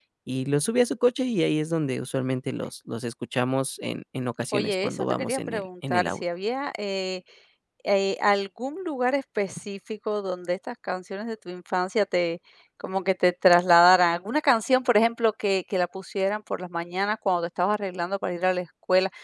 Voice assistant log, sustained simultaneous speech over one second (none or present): present